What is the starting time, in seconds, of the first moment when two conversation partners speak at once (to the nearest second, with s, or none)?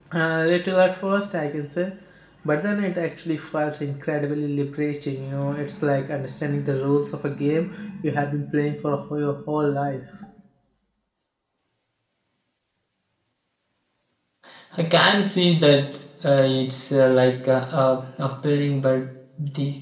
none